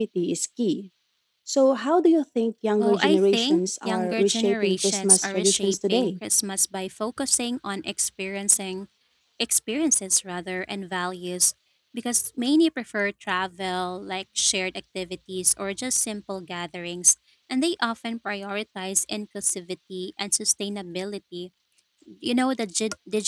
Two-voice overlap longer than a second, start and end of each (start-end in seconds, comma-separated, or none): 2.8-6.1